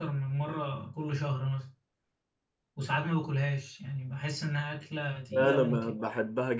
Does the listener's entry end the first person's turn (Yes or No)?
Yes